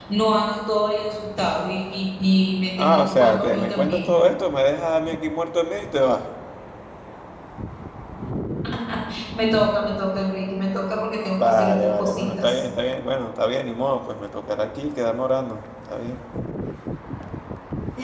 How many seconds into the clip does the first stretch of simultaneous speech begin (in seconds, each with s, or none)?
2.8 s